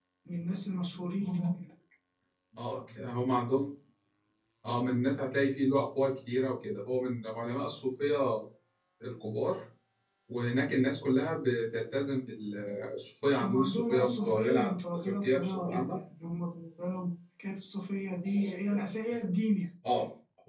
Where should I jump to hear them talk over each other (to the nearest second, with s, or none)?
13 s